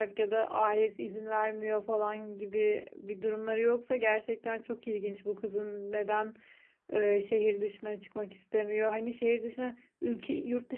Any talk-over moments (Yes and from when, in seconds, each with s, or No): No